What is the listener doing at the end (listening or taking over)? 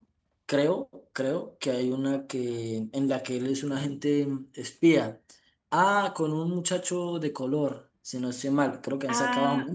taking over